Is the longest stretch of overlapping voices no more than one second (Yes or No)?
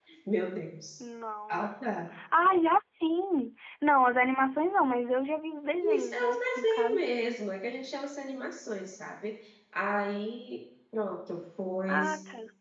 No